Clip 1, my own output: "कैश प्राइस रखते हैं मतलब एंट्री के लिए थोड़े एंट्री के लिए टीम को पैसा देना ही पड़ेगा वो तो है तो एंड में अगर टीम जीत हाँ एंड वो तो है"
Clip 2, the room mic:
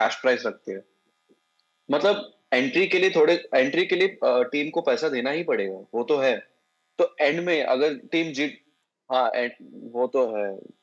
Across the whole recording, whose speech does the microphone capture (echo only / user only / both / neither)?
echo only